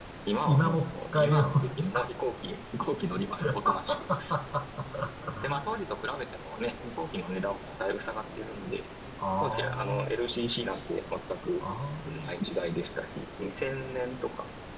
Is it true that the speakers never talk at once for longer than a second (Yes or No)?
No